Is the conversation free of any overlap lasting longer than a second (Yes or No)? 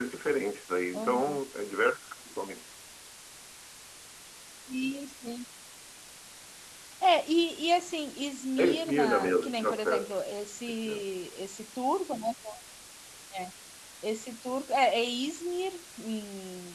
No